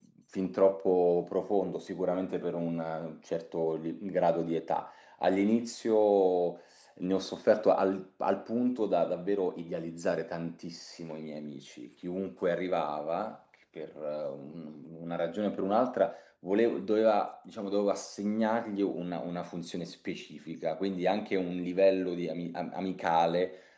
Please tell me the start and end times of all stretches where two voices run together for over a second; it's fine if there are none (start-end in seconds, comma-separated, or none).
none